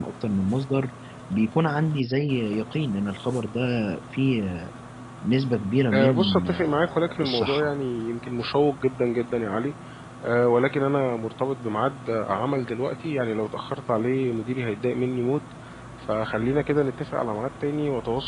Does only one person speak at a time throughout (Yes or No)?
No